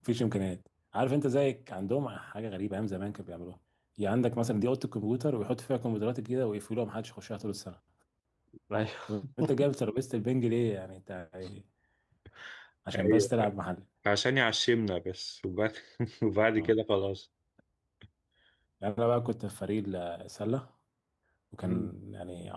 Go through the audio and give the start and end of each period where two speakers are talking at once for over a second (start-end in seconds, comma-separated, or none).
none